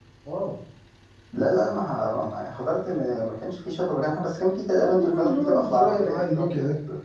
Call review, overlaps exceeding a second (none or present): present